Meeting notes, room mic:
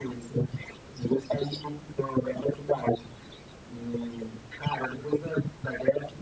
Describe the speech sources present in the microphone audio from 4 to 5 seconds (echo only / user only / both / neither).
echo only